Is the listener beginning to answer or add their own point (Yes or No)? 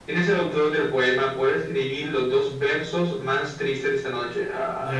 Yes